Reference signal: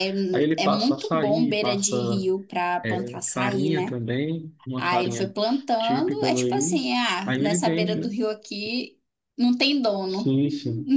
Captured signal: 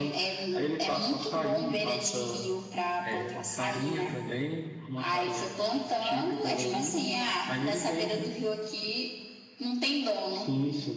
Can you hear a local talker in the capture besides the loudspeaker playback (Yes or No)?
Yes